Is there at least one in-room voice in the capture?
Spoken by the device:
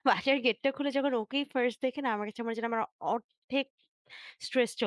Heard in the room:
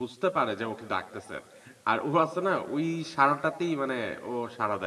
Yes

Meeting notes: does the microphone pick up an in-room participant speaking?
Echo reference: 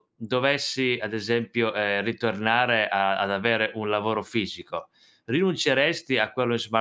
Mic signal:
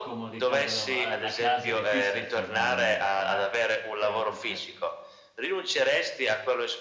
Yes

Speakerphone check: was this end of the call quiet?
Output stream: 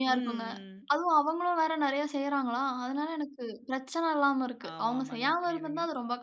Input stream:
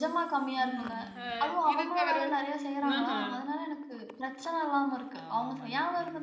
No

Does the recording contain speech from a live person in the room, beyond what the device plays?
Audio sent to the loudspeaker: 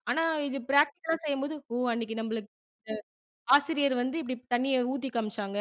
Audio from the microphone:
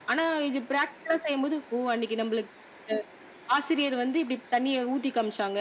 No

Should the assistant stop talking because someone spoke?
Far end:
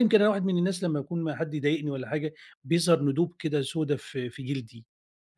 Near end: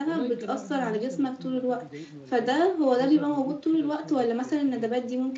Yes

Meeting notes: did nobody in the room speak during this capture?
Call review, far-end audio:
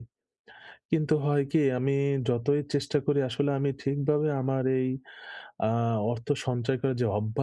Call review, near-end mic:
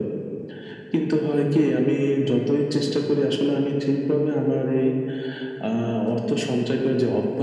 Yes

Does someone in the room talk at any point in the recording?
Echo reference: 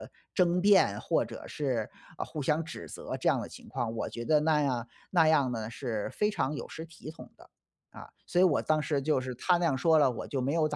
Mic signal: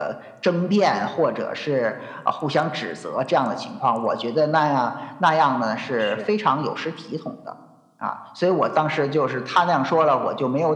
Yes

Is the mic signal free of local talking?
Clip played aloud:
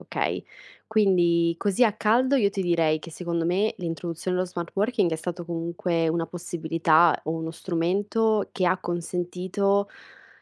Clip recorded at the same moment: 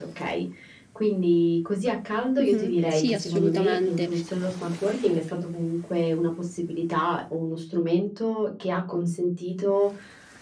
No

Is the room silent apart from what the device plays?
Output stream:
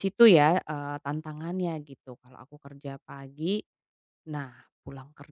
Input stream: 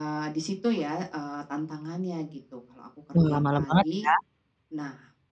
No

